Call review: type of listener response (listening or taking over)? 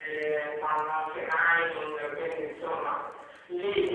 listening